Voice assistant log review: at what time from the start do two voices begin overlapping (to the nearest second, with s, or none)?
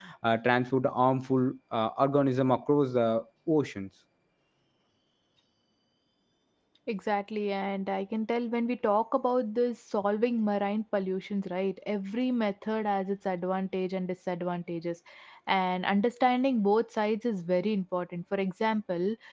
none